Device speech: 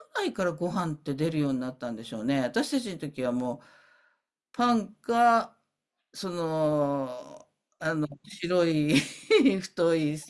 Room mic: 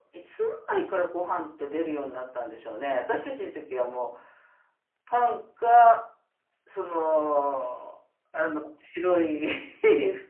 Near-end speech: none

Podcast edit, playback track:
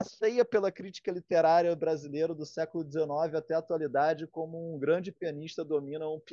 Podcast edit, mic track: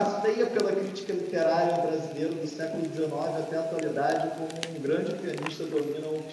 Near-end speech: none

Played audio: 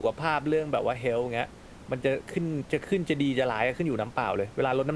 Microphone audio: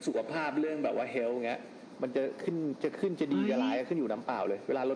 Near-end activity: present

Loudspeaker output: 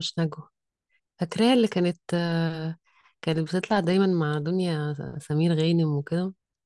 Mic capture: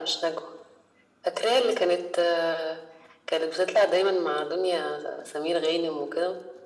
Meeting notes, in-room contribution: none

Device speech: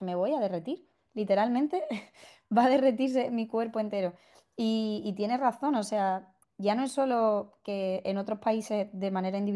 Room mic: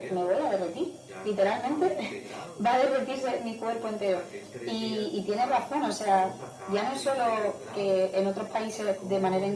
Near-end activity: present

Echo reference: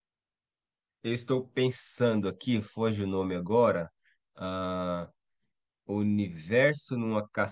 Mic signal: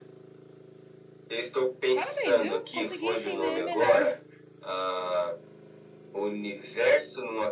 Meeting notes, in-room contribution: present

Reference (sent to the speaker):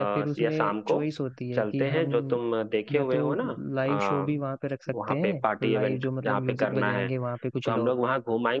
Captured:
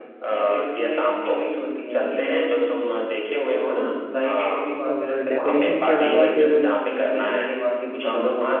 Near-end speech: present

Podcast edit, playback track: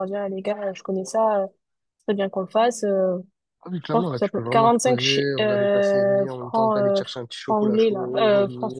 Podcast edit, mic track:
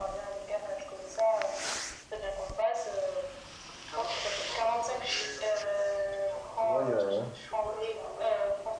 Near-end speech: present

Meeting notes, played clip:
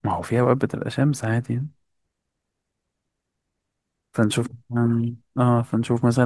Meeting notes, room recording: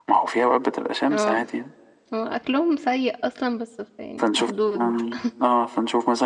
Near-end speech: present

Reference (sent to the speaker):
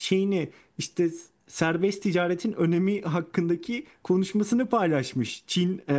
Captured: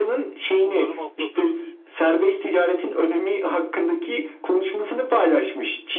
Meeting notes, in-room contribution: present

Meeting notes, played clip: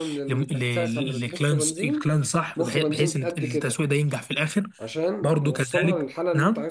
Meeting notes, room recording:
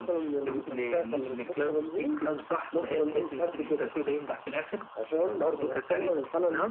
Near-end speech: none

